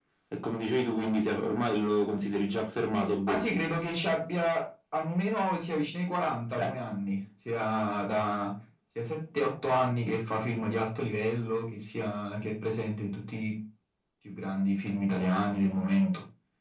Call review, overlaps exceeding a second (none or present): none